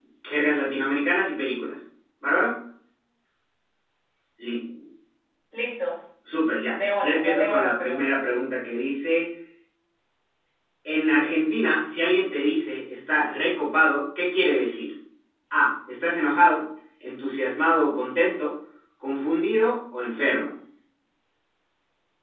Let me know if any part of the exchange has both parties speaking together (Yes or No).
Yes